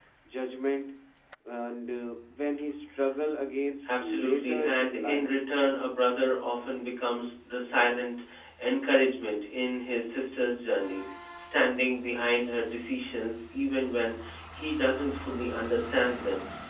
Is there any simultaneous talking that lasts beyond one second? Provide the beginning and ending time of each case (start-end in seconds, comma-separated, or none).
3.9-5.3